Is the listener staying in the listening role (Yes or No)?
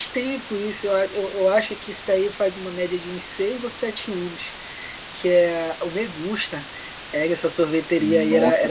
Yes